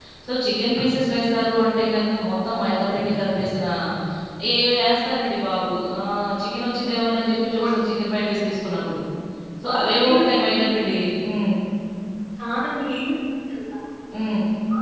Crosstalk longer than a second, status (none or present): none